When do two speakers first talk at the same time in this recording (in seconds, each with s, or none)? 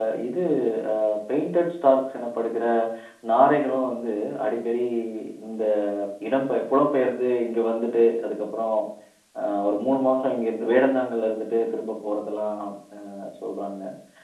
none